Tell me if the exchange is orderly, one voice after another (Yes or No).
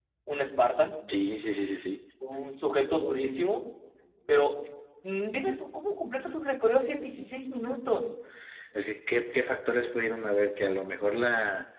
Yes